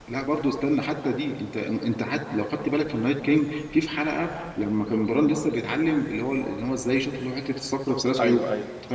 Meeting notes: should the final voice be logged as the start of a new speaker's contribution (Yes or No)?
No